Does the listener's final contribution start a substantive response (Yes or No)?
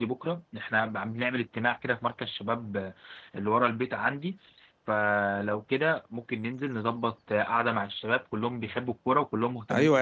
Yes